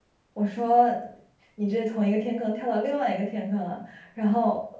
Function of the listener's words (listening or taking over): listening